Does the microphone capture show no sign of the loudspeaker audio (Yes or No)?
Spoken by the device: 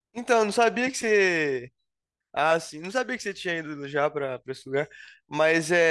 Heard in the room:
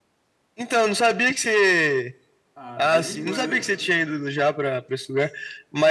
No